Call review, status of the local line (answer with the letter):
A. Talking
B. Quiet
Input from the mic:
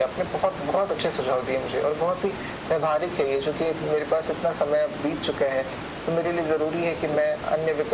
B